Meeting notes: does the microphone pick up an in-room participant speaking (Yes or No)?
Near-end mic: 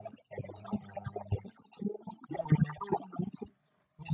No